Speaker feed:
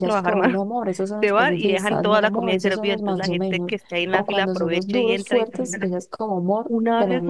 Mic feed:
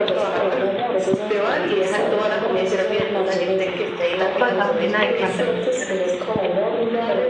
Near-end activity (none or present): present